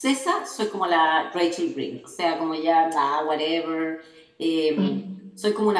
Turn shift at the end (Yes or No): No